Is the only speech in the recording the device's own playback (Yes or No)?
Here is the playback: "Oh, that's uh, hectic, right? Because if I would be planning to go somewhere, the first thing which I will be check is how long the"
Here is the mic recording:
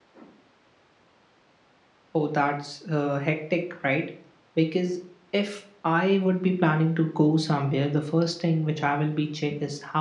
Yes